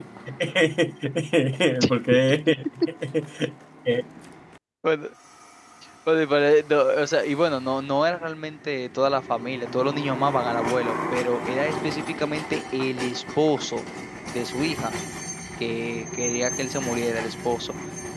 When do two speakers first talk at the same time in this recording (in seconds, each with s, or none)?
none